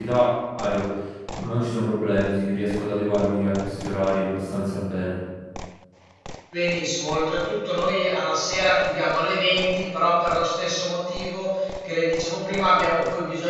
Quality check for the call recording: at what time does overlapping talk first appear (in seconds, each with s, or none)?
none